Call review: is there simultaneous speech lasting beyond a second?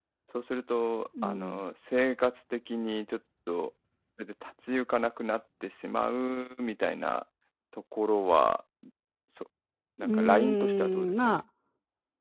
Yes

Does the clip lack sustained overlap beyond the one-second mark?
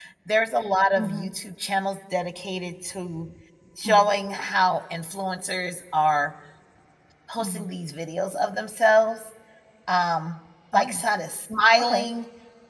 Yes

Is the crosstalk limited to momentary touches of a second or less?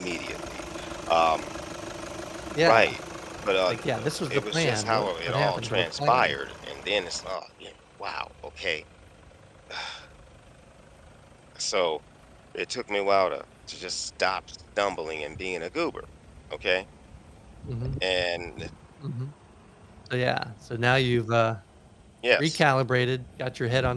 No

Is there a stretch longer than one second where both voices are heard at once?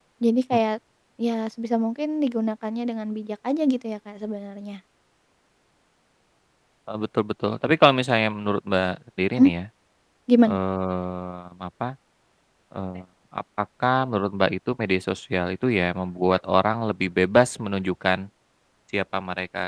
No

